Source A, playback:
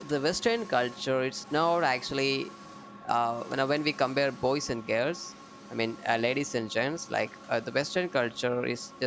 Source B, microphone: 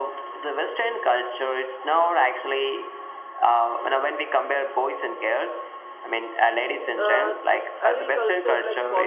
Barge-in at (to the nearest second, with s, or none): 7 s